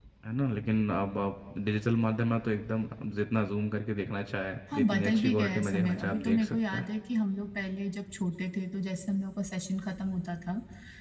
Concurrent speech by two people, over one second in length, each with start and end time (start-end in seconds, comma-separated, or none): 4.7-6.8